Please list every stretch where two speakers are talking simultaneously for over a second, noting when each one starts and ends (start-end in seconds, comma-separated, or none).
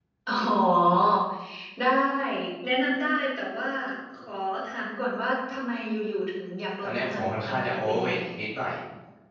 6.8-8.2